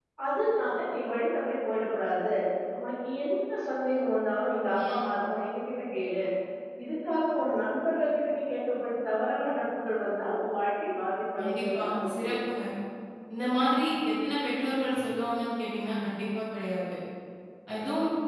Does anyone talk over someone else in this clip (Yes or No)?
Yes